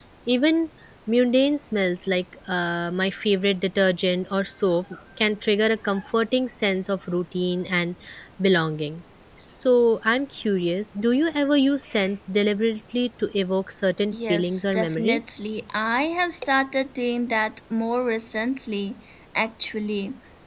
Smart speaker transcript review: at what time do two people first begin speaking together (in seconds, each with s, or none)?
14.1 s